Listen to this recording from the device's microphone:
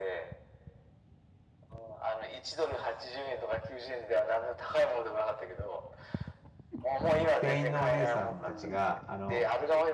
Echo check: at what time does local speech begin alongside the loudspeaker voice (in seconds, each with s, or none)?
7.4 s